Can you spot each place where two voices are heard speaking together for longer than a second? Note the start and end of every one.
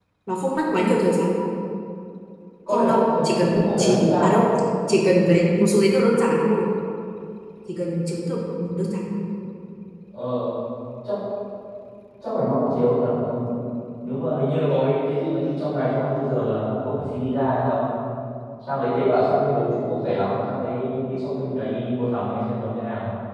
2.7-4.4

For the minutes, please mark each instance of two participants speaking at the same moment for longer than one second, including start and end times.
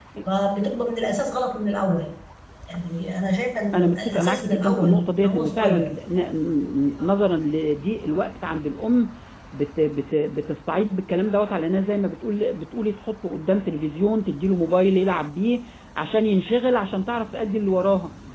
3.7-6.0

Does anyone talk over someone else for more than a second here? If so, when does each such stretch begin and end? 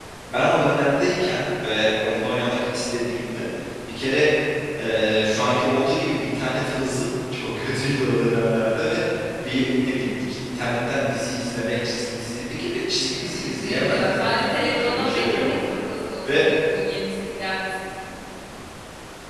13.2-15.5

